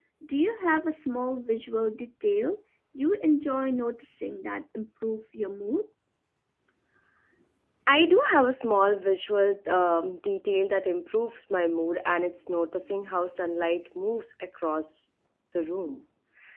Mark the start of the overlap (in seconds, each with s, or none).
none